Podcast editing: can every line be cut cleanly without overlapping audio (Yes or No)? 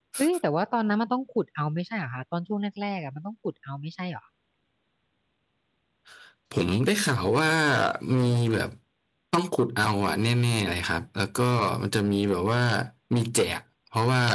Yes